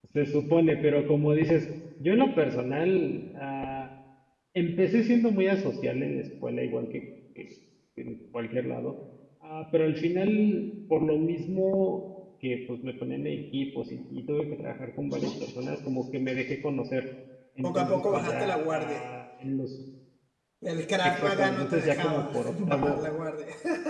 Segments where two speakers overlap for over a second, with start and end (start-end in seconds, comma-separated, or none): 17.6-19.0, 21.0-23.0